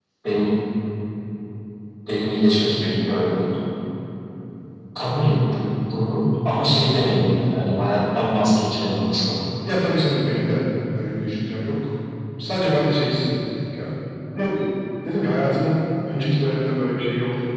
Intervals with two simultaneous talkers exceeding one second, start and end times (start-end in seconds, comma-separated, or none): none